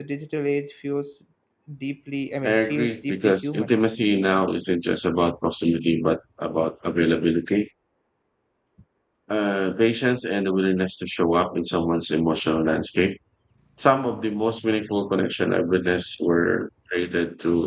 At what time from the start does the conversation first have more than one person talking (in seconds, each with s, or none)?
2.4 s